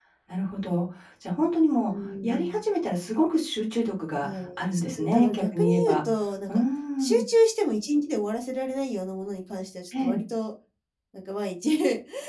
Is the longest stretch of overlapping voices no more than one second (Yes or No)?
No